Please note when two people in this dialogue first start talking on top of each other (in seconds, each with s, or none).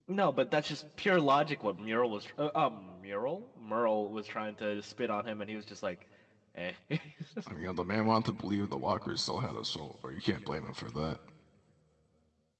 none